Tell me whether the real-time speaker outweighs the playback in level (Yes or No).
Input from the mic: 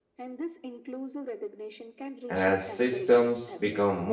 Yes